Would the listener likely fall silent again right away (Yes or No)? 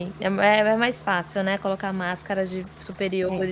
Yes